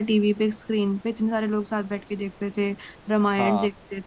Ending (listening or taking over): listening